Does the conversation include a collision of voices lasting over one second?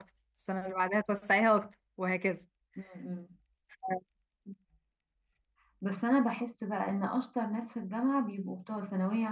No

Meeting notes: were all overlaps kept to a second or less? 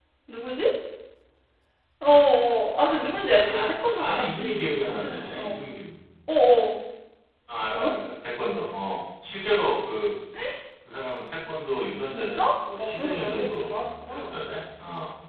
No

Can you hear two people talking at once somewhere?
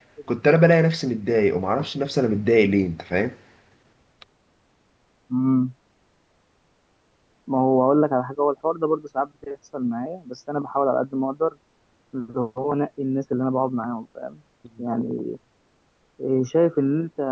No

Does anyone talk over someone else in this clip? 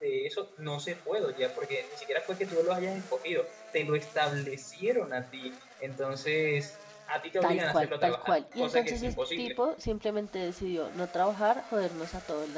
Yes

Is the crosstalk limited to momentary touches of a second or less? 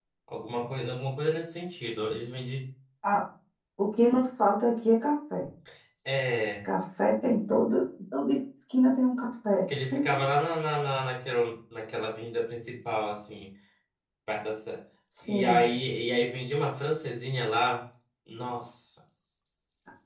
Yes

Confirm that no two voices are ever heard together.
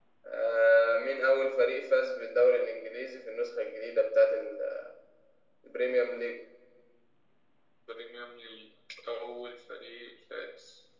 Yes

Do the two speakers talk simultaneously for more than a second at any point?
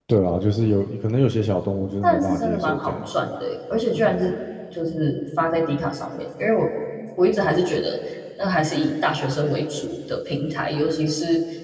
Yes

